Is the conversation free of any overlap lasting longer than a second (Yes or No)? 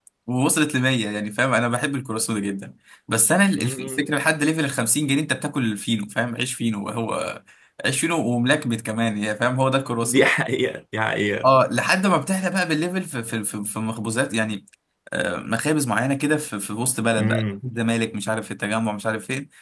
Yes